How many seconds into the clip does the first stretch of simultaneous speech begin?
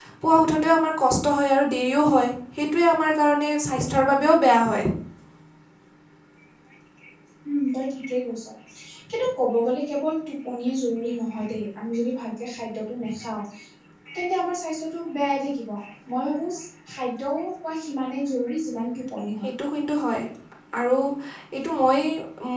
none

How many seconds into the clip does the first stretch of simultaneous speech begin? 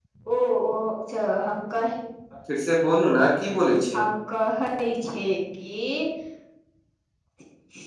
none

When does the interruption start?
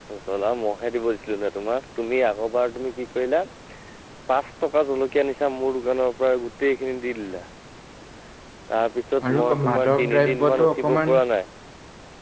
9.2 s

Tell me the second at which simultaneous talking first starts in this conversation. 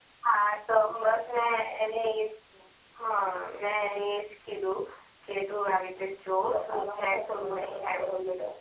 6.5 s

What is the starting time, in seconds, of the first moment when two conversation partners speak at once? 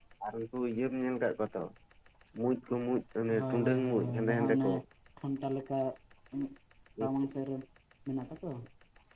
3.3 s

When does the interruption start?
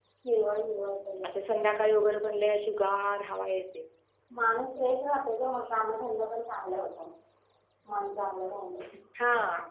none

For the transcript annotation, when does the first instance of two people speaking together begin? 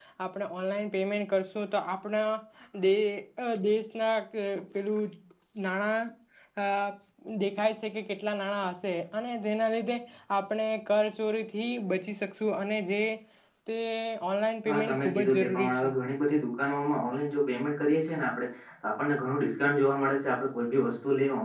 14.7 s

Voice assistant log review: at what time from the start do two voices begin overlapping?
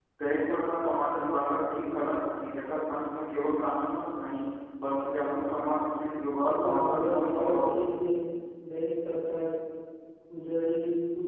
6.4 s

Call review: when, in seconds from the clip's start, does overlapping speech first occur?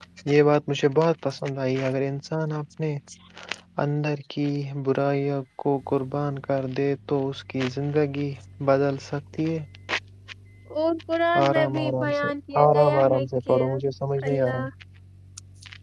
11.5 s

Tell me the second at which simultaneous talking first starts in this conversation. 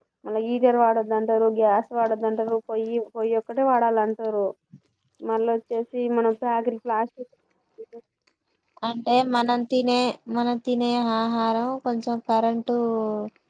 none

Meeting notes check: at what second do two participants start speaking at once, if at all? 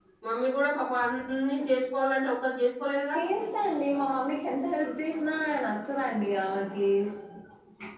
none

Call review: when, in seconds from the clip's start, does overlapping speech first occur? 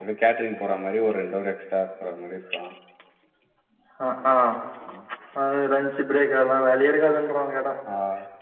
none

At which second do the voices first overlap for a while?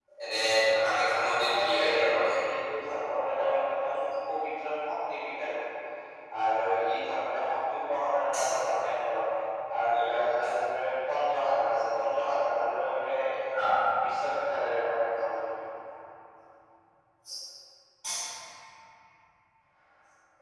0.8 s

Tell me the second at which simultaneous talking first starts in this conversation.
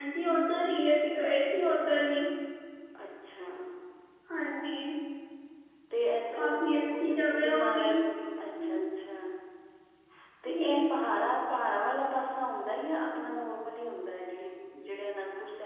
6.3 s

